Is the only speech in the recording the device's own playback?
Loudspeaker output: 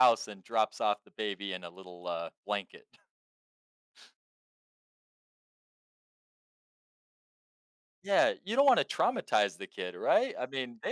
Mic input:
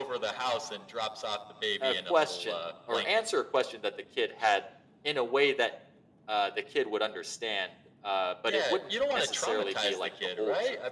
No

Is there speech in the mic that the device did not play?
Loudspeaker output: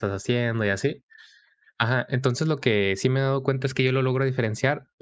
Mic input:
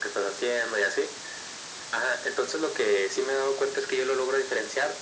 No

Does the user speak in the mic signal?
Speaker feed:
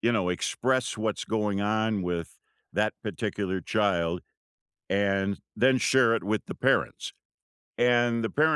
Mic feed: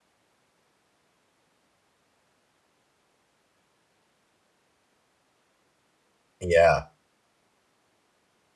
Yes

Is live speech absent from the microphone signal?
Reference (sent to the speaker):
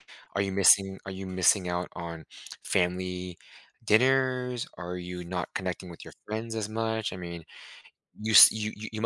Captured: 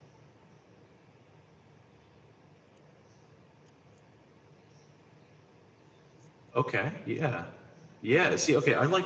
No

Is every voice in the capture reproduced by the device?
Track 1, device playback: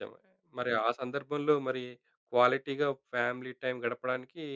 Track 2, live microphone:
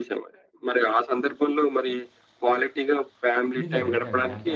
No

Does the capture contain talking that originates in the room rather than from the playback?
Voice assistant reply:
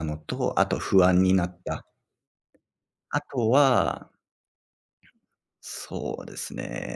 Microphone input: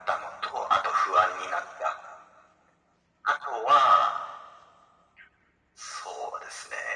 No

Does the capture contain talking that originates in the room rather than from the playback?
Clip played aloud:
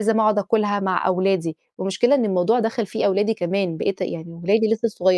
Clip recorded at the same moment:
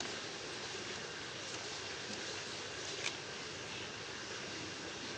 No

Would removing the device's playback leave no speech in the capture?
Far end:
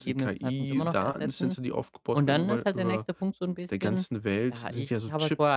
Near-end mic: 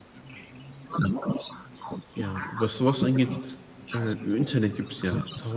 No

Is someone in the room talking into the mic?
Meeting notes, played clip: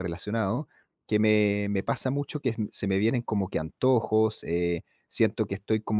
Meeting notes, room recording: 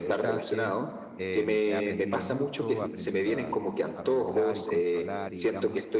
Yes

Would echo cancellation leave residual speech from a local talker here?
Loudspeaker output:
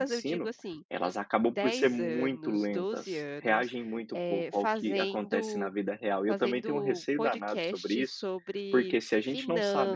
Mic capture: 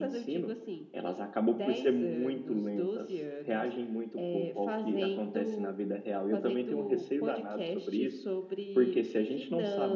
No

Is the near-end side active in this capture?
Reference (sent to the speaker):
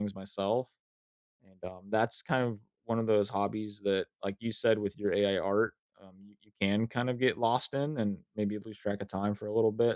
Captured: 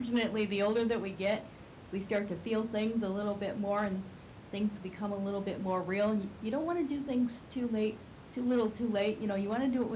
Yes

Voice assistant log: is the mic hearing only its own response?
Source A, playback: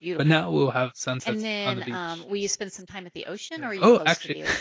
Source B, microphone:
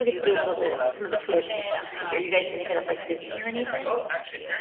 No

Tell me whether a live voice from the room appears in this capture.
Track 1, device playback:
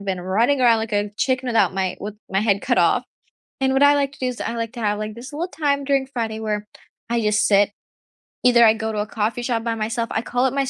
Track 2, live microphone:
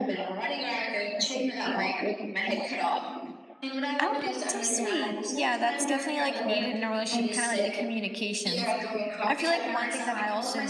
Yes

